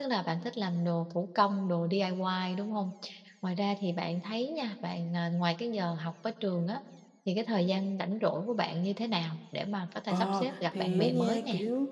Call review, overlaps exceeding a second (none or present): present